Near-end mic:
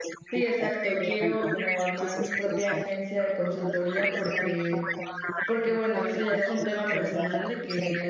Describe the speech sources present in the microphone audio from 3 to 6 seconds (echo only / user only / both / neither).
both